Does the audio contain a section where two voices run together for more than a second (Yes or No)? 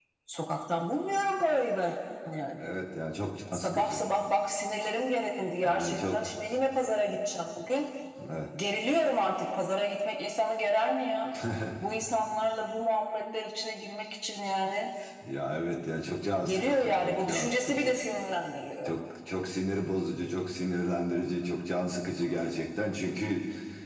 Yes